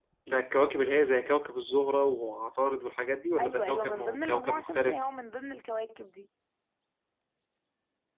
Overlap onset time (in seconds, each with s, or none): 3.4 s